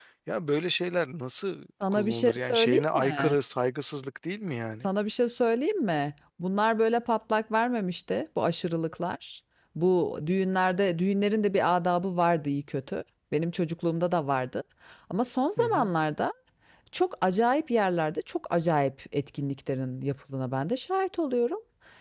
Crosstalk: present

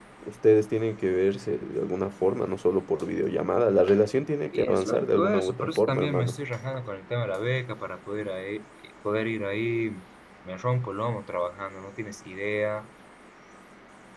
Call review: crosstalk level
present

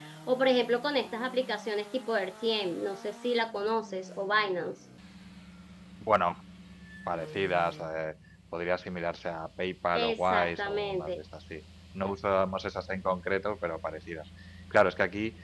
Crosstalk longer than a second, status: present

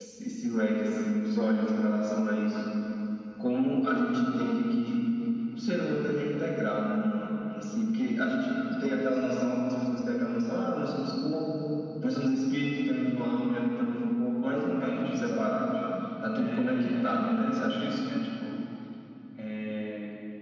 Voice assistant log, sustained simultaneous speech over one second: present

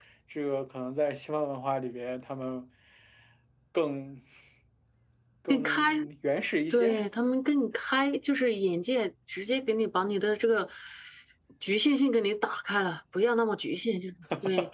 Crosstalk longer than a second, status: none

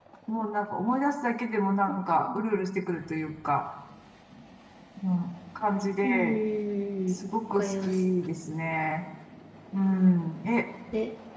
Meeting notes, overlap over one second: none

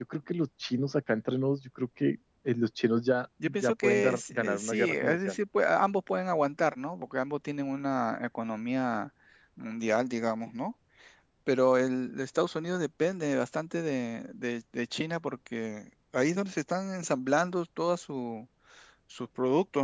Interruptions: present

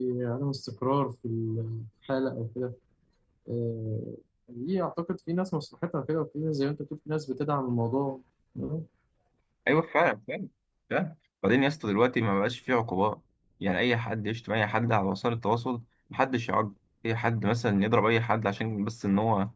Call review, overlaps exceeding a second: none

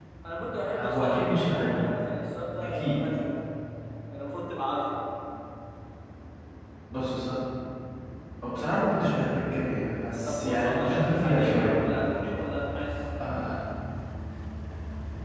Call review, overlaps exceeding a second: present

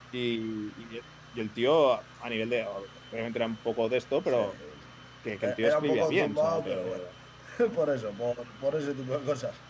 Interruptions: present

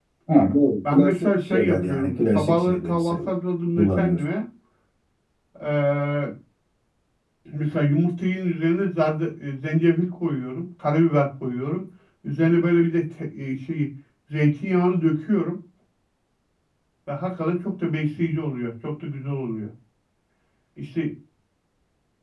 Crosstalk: present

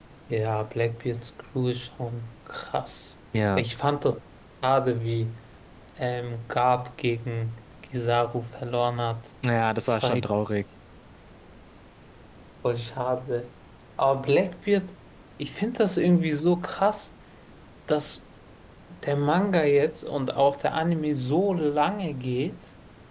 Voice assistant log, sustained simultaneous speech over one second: none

